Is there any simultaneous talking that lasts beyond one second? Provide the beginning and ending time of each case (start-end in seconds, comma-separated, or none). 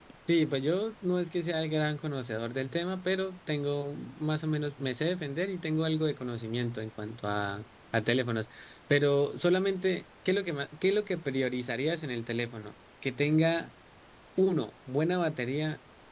none